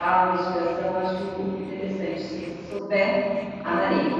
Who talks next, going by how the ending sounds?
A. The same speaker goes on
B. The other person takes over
B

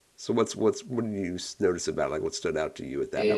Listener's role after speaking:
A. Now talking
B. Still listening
A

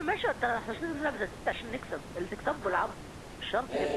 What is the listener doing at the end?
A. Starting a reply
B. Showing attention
A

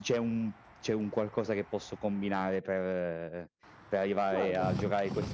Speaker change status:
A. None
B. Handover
A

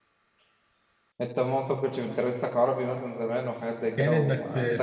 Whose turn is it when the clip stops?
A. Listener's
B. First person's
A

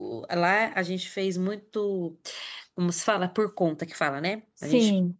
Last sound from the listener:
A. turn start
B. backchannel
B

